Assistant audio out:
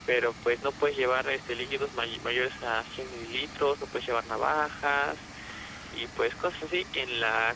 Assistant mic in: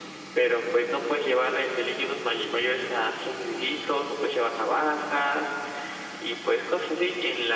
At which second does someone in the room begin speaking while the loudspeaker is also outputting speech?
none

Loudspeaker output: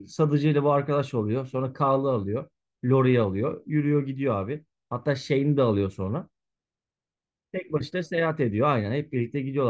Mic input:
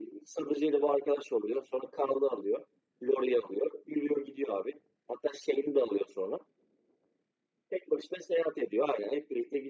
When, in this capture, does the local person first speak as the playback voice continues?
none

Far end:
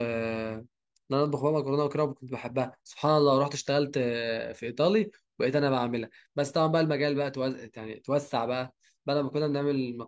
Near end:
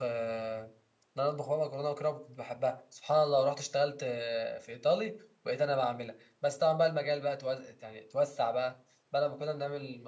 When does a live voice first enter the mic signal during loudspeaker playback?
none

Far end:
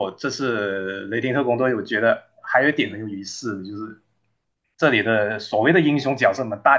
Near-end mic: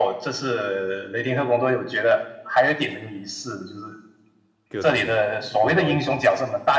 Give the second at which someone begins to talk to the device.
4.7 s

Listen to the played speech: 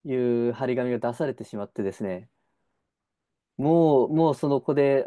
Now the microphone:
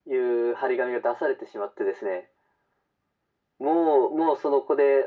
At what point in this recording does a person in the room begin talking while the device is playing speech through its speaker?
none

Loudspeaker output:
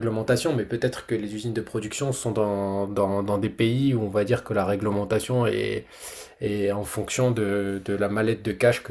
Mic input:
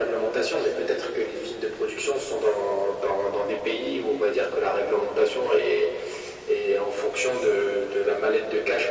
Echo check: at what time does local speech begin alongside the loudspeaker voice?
none

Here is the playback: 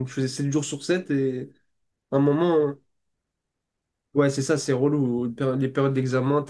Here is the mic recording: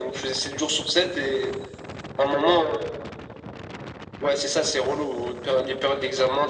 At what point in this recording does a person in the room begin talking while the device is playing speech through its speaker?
none

